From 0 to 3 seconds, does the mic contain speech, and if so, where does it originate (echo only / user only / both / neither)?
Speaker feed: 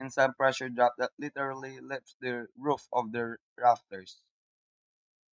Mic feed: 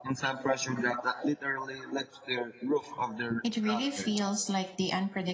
echo only